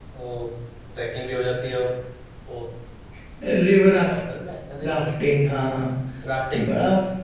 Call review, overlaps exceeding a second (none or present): none